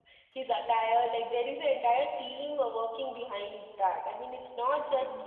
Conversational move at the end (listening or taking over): listening